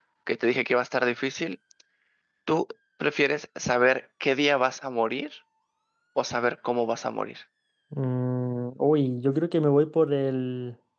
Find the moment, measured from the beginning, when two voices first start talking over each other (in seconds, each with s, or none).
none